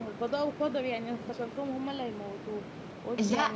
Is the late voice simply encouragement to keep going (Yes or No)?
Yes